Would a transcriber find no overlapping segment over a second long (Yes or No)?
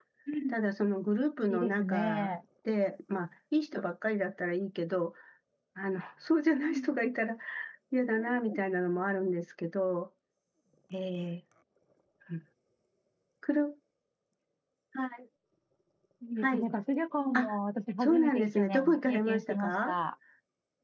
No